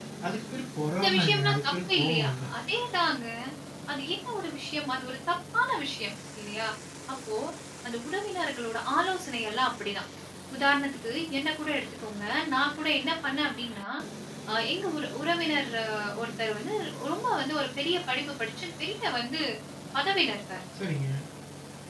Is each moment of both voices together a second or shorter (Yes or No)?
No